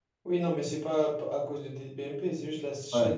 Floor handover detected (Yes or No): No